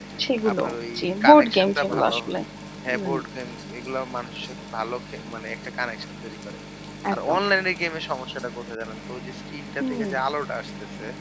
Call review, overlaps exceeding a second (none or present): present